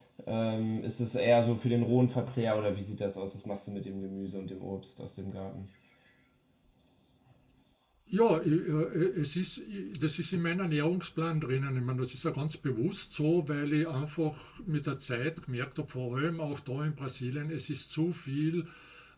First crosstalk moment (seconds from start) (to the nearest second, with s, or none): none